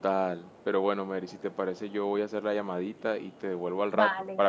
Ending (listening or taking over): taking over